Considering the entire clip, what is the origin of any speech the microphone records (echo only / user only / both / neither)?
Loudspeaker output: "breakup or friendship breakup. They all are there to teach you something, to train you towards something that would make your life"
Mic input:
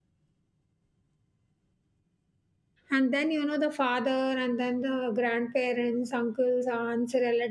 user only